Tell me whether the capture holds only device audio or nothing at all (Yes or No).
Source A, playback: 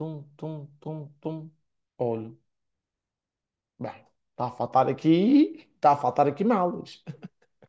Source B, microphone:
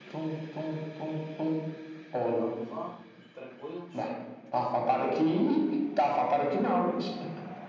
No